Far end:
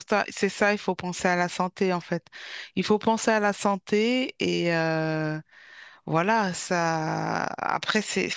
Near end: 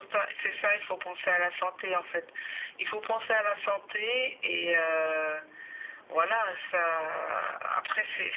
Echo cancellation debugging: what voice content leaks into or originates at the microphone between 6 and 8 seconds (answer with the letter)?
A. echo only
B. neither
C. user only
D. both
A